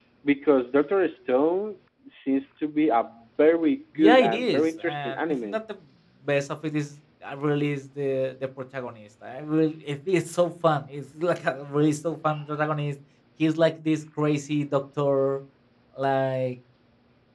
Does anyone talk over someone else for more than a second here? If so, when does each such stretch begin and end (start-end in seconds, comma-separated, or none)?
4.0-5.6